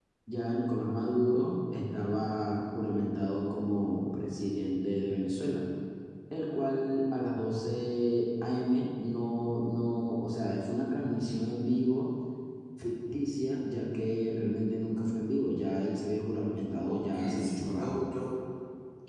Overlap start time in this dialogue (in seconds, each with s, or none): 16.8 s